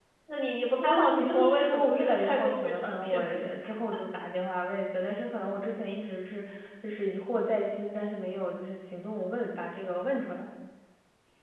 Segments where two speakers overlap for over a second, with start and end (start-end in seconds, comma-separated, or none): 0.8-3.5